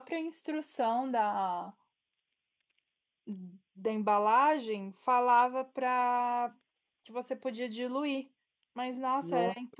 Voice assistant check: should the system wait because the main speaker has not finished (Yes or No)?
Yes